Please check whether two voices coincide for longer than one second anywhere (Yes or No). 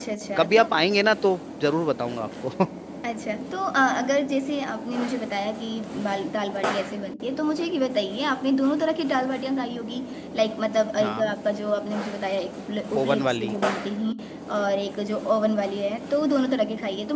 No